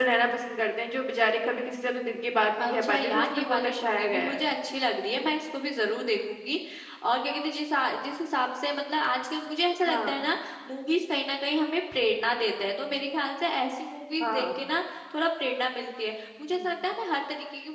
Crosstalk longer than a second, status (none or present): present